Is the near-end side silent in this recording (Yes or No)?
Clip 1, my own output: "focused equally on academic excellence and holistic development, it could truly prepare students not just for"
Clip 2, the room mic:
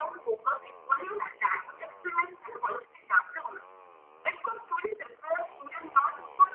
Yes